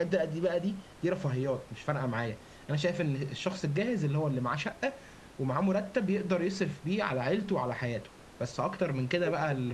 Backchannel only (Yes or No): Yes